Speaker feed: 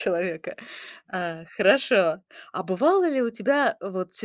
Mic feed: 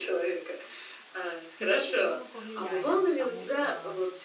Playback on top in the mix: Yes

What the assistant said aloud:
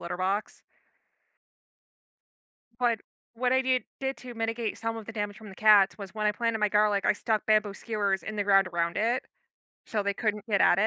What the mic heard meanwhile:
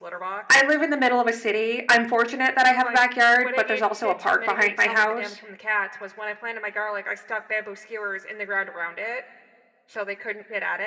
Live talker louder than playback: Yes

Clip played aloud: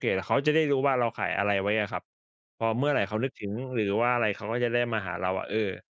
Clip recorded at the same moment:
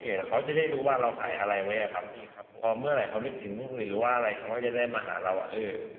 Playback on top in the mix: Yes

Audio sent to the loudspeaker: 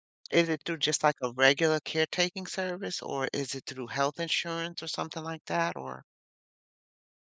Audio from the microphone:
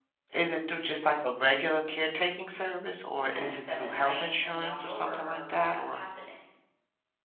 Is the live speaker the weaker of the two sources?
Yes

